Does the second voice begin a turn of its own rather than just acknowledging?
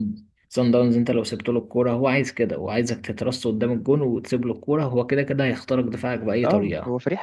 Yes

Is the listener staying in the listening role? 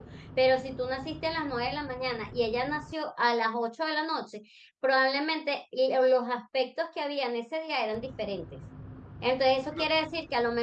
Yes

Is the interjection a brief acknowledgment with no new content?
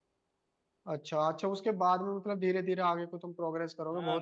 No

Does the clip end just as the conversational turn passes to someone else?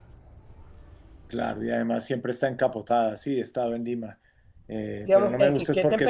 Yes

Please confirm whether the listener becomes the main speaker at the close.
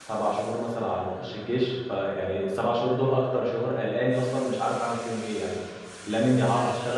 No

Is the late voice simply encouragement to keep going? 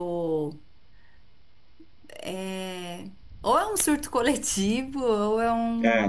No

